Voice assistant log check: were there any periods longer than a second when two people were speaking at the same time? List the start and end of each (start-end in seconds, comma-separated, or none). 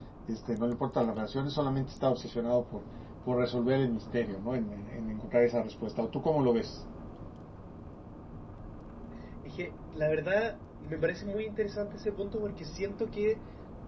none